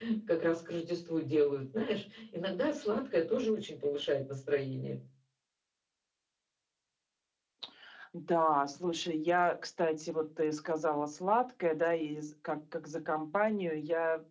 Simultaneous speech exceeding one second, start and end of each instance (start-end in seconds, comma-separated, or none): none